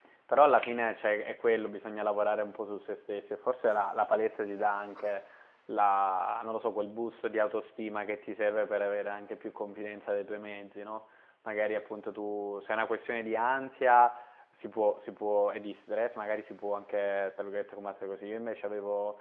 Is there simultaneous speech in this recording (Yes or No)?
No